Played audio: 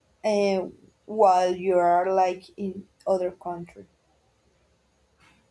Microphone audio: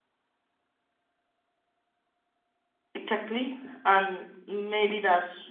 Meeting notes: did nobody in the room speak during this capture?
No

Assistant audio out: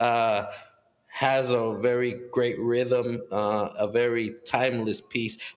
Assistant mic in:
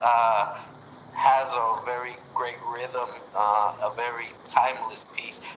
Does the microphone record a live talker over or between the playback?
No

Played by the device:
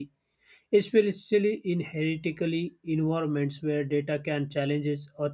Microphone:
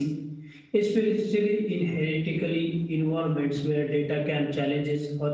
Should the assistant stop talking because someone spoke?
No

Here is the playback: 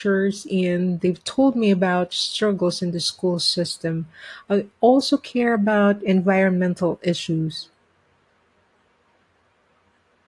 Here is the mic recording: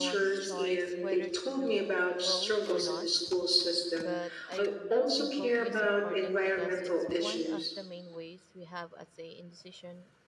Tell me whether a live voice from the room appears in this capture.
Yes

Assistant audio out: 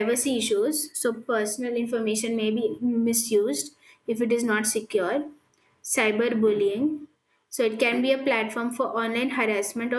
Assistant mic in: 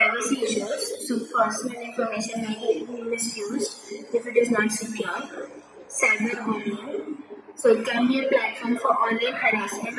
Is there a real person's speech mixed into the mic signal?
No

